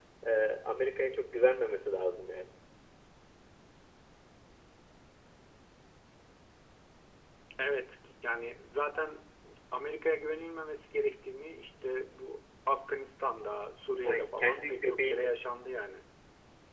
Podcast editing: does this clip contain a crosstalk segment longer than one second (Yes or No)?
Yes